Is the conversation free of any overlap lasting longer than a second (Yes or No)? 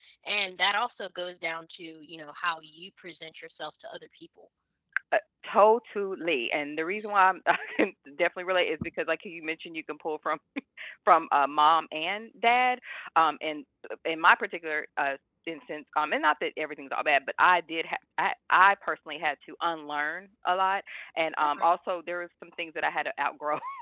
Yes